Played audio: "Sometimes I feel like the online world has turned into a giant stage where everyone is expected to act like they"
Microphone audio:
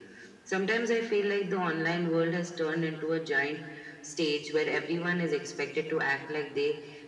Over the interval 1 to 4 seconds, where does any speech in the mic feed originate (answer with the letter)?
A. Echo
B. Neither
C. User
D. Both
A